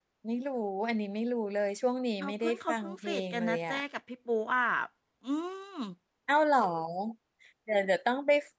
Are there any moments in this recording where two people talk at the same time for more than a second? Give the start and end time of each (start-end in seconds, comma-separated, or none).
2.2-3.8